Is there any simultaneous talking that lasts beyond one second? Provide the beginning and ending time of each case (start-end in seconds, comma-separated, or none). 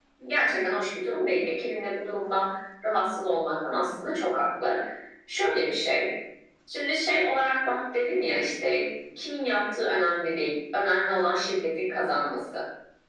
none